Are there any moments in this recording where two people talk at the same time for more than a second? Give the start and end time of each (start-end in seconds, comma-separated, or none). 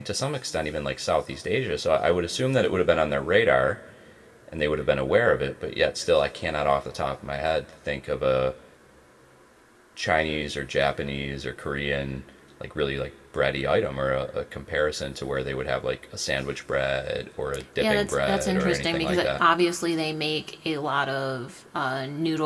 17.8-19.4